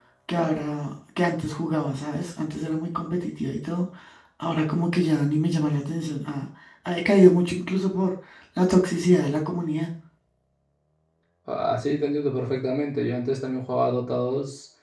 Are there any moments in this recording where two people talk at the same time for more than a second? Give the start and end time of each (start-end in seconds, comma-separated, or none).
none